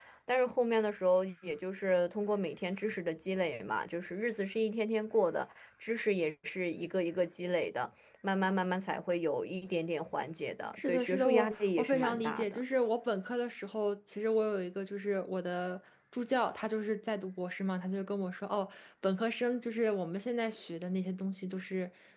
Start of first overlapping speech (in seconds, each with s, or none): 10.8 s